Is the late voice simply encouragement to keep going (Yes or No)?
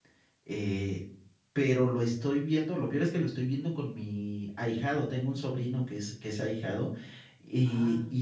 Yes